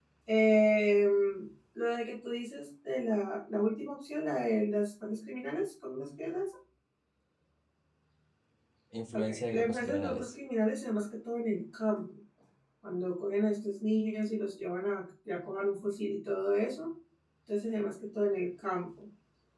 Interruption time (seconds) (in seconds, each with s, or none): 9.1 s